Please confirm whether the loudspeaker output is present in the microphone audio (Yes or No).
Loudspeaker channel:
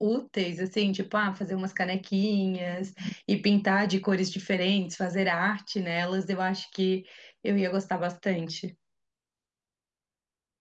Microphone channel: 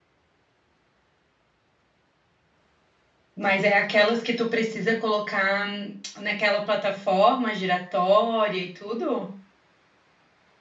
No